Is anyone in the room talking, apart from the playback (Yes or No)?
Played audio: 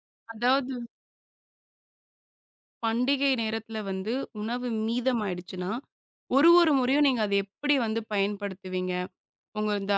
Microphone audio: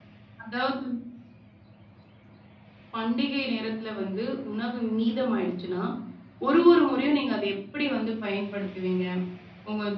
No